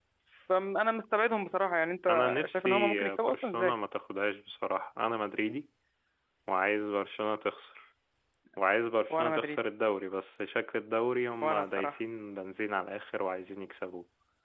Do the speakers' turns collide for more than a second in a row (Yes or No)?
Yes